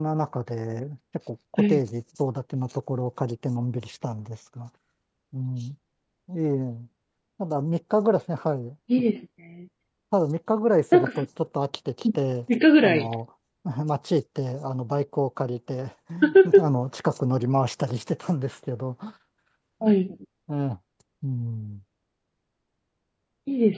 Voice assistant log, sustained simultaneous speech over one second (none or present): none